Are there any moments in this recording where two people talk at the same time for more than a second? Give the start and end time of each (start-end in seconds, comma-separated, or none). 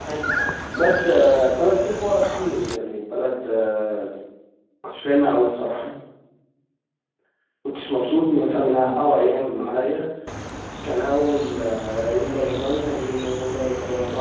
none